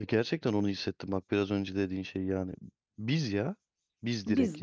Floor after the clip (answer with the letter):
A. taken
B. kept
A